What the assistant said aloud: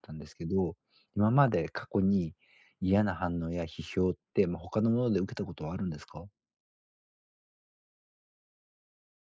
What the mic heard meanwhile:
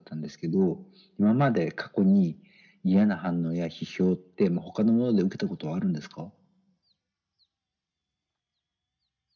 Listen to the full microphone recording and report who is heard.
echo only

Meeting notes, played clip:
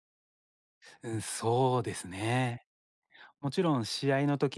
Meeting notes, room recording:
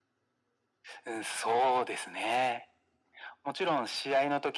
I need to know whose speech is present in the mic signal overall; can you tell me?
echo only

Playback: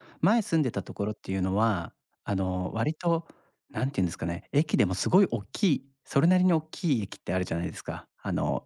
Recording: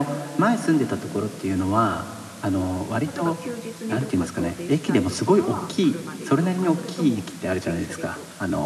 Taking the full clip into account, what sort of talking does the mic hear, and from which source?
both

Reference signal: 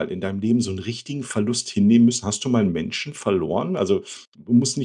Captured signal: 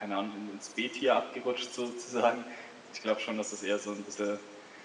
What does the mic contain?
user only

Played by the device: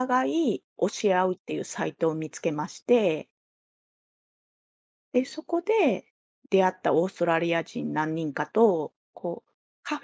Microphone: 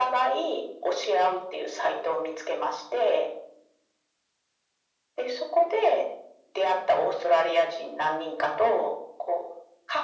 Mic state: echo only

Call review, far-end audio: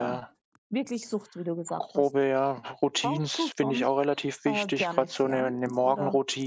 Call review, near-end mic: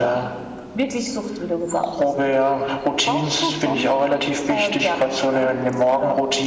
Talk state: echo only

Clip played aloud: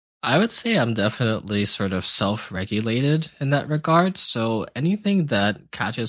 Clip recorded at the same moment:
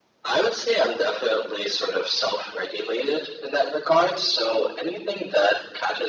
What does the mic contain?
echo only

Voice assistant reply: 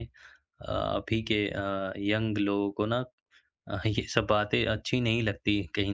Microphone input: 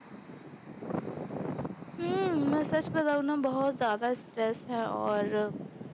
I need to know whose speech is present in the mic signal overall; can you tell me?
user only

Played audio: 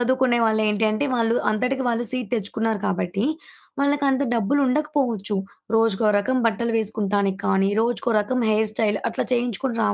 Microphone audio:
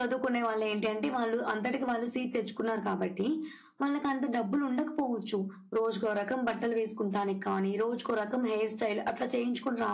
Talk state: echo only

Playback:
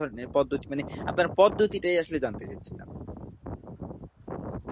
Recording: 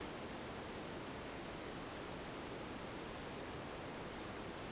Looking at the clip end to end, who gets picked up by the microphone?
neither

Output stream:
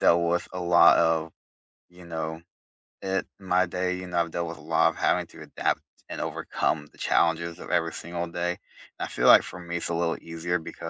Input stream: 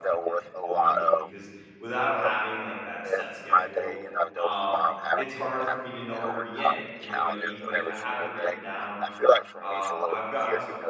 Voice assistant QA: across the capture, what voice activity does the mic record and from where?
both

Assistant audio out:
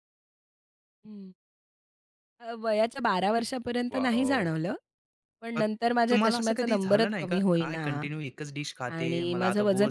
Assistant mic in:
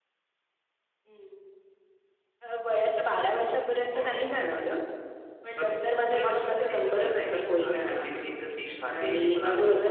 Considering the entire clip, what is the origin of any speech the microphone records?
echo only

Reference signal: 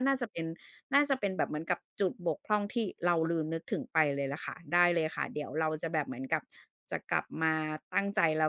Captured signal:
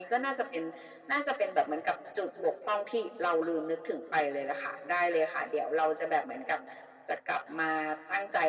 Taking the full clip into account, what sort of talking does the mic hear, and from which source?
echo only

